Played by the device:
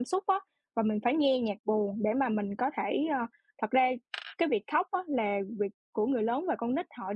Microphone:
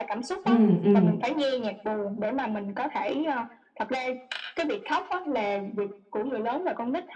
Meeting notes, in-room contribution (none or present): present